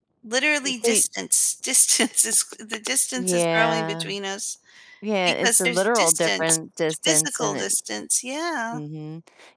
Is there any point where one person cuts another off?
Yes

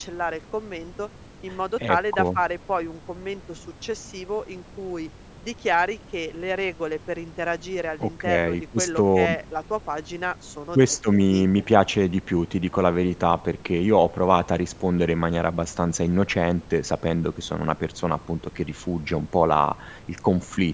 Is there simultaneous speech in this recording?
Yes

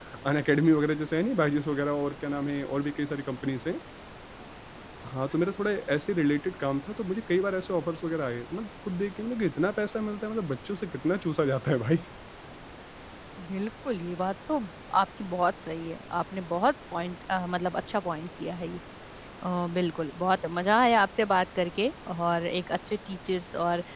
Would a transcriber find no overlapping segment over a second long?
Yes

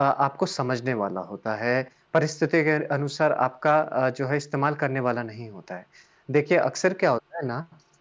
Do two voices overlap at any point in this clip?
No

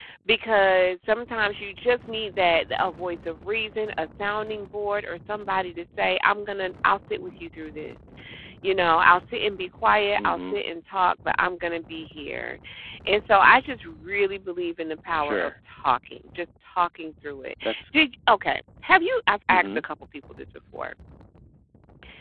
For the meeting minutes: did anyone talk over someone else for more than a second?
No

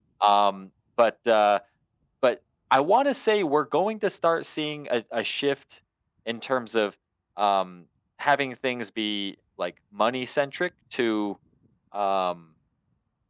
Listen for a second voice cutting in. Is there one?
No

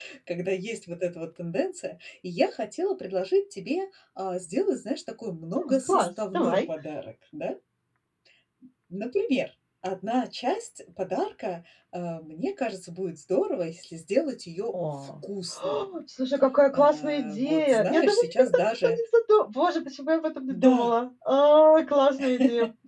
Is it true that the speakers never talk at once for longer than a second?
No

